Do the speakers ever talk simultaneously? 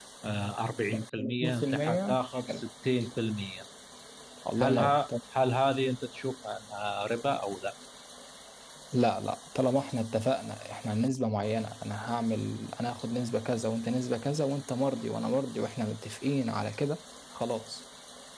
Yes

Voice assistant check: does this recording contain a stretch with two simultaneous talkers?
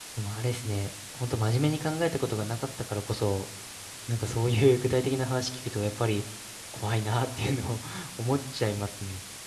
No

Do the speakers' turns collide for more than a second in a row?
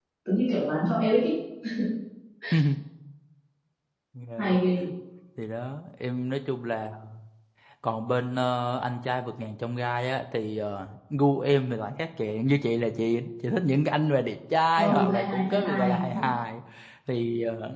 Yes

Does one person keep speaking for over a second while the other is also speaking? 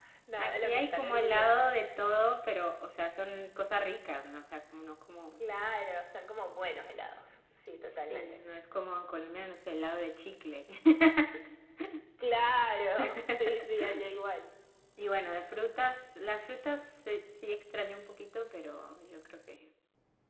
Yes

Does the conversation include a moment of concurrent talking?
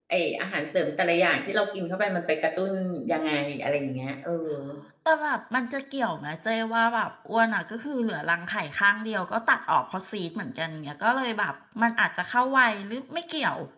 No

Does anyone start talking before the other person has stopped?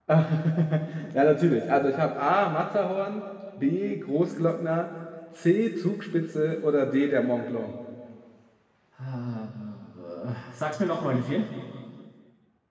No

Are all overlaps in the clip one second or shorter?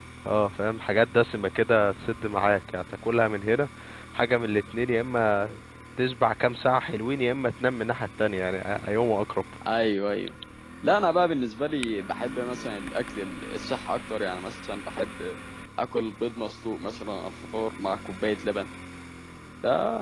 Yes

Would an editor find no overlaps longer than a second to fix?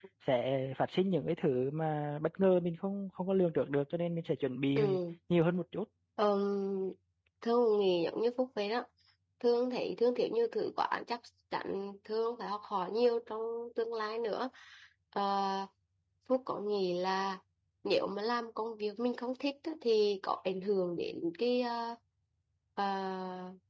Yes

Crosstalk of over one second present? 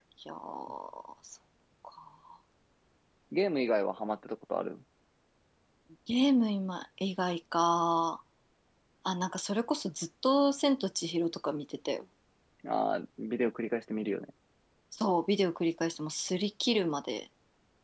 No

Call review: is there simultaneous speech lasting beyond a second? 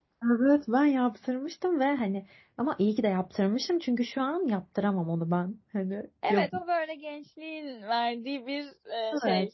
No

